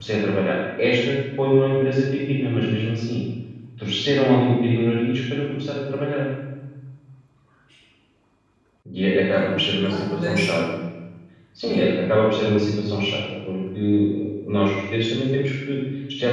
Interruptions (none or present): present